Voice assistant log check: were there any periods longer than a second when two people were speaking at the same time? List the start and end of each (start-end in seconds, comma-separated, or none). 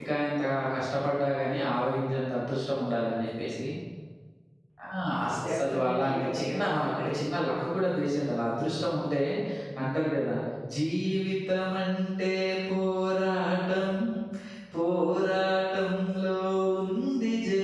5.5-7.2